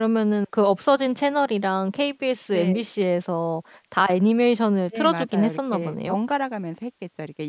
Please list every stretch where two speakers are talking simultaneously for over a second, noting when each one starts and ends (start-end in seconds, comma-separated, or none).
4.9-6.2